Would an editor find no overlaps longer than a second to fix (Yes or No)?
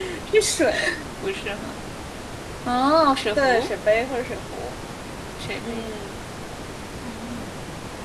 Yes